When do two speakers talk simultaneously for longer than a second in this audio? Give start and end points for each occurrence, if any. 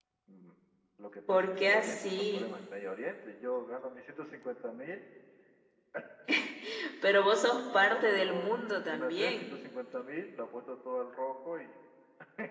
1.3-2.5, 7.7-9.6

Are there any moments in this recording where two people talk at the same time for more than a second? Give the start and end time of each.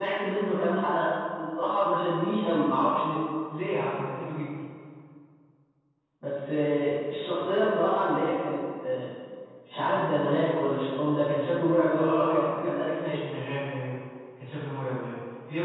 11.9-13.2

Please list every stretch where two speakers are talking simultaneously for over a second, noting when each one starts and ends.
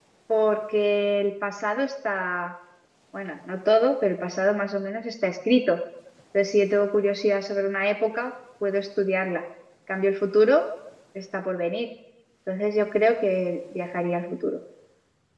none

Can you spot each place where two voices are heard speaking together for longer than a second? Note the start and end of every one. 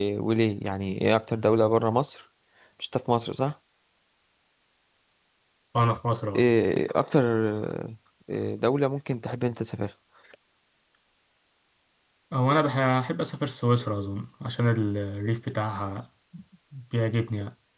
none

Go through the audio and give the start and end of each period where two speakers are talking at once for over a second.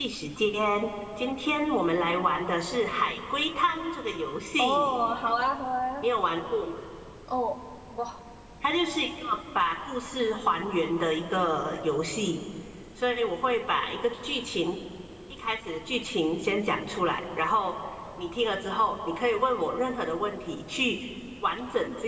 none

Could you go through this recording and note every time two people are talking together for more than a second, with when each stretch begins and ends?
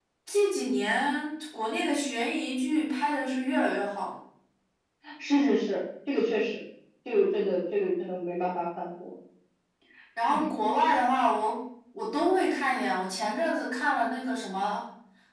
none

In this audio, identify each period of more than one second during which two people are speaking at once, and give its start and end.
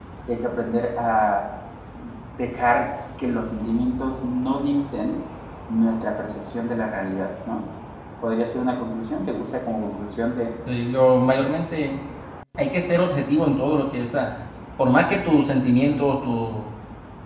none

